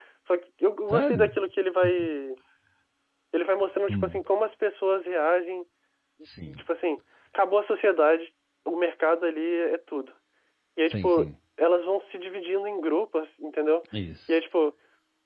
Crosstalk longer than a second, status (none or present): none